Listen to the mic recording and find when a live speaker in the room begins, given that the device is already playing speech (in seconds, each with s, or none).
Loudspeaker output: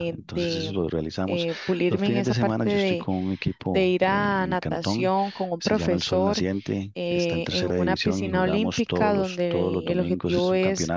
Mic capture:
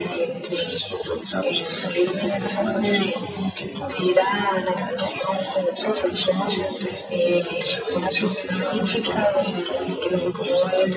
none